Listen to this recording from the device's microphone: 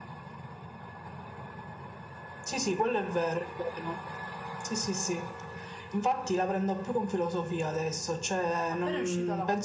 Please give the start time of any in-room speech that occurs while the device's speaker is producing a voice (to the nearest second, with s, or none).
9 s